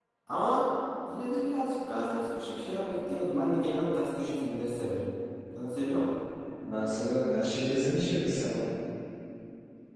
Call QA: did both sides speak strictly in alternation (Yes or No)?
Yes